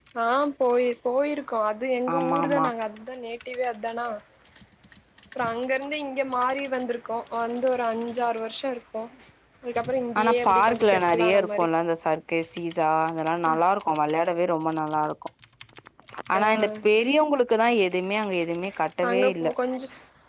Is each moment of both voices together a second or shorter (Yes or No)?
No